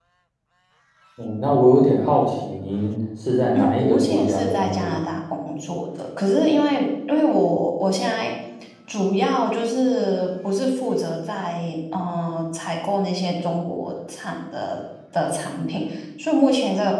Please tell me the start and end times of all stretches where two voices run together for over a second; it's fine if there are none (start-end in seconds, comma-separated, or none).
3.5-5.0